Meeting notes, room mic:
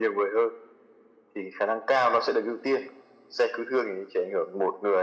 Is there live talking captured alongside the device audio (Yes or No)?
No